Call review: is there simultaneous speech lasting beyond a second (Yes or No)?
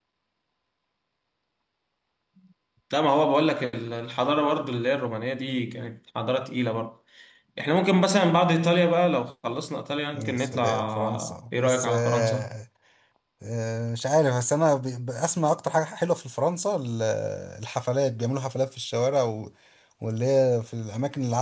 Yes